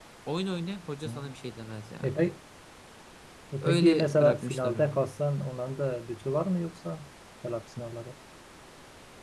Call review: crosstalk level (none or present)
present